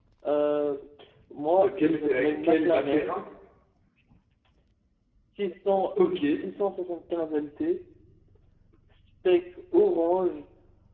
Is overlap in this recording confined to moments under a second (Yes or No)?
No